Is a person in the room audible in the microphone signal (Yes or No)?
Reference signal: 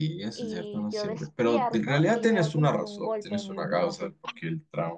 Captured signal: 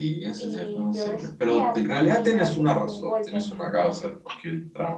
No